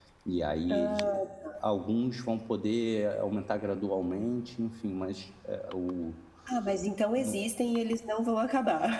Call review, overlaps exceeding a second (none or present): none